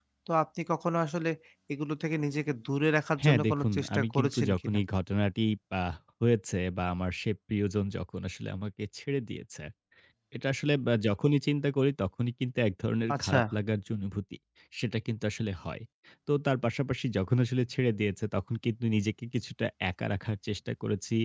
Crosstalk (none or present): present